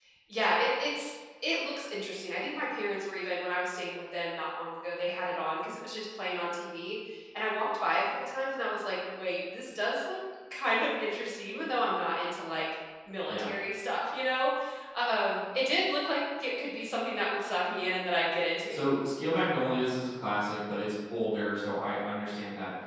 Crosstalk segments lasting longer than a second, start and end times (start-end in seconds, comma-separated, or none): none